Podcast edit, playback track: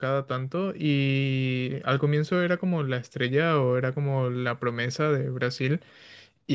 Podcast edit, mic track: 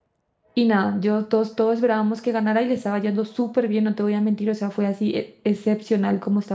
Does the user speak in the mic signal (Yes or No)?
Yes